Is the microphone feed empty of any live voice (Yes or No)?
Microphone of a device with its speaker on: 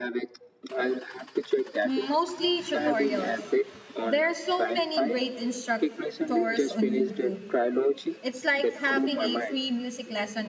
No